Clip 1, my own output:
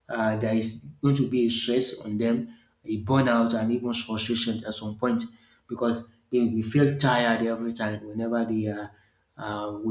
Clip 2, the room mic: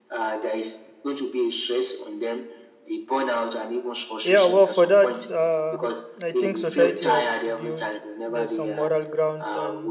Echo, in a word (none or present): present